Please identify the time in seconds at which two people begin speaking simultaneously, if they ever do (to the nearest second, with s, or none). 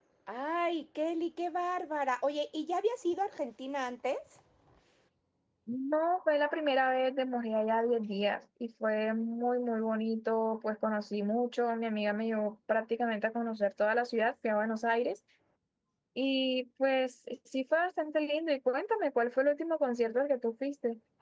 none